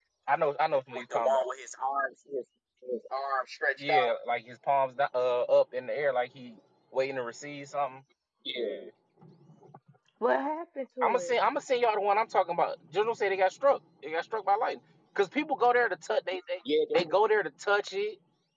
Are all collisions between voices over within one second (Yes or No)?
Yes